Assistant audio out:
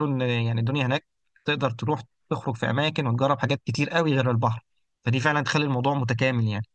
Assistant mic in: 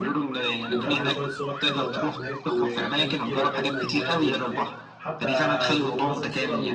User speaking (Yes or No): Yes